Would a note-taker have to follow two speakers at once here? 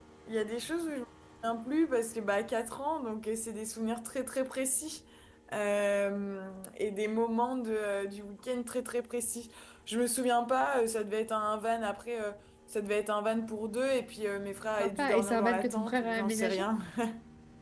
Yes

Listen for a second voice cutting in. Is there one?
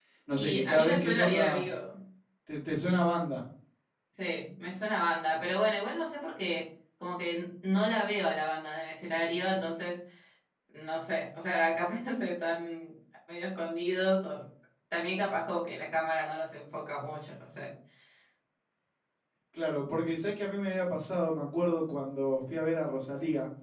Yes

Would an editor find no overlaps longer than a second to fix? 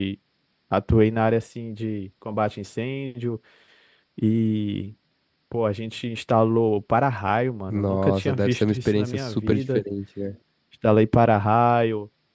No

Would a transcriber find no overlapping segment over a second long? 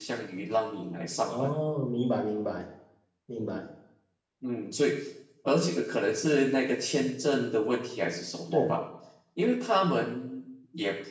Yes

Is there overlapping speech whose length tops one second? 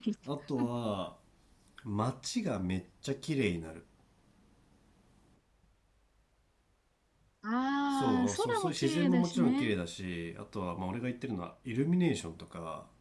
Yes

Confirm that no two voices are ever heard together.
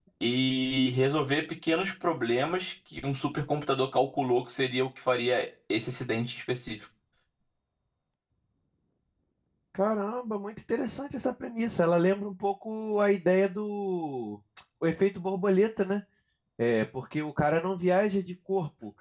Yes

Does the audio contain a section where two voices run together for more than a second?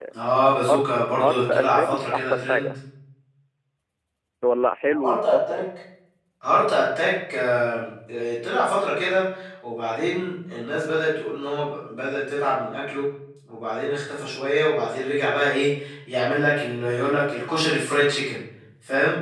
Yes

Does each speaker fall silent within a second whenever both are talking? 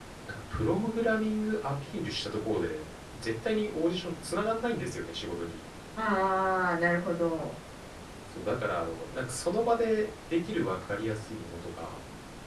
Yes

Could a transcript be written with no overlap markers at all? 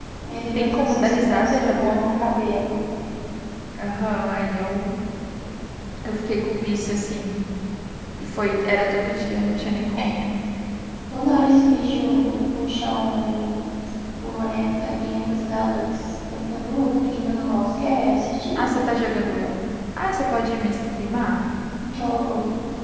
No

